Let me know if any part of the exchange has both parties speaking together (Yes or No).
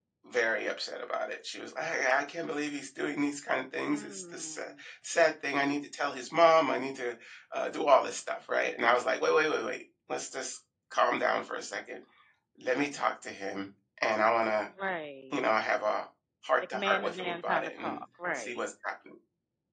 Yes